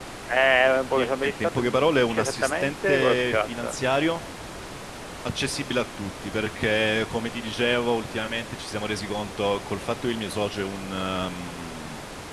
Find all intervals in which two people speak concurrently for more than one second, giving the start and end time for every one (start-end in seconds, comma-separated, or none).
0.9-3.8